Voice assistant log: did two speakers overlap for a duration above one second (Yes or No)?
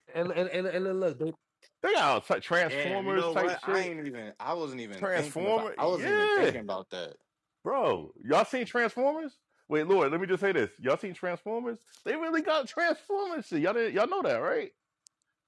Yes